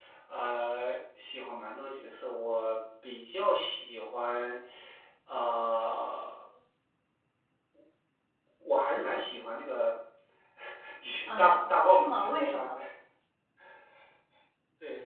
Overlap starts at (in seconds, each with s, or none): 11.3 s